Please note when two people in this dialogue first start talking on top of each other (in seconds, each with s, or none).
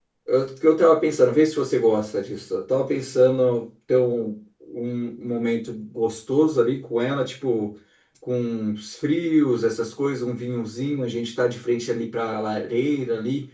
none